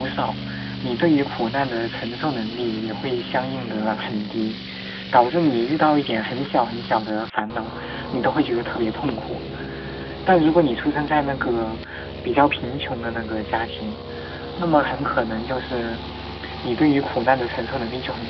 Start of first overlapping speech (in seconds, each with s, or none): none